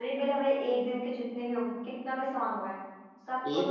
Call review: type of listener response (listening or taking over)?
taking over